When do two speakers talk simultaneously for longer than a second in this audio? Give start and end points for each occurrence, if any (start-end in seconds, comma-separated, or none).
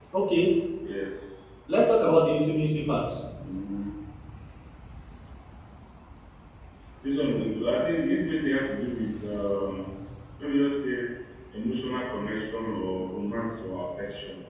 none